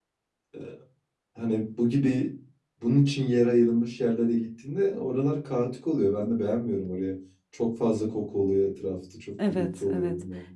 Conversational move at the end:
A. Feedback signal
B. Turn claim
B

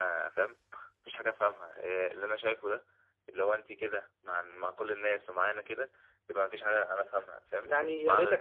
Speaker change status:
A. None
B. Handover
B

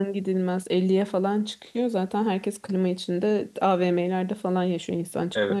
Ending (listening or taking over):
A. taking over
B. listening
A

